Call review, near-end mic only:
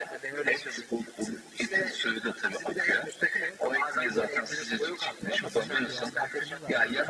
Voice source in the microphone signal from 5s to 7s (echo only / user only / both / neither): both